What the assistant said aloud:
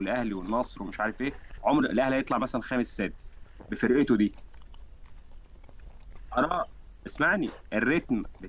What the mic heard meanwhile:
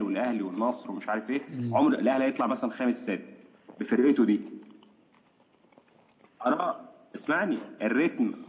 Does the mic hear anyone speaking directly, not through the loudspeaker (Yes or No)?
Yes